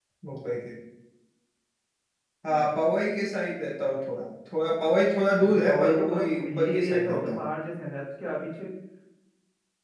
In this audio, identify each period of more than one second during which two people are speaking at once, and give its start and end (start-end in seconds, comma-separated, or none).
5.7-7.4